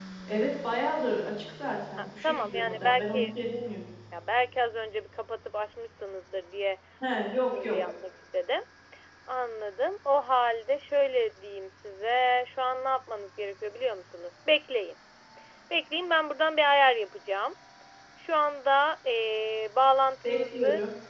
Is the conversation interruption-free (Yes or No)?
No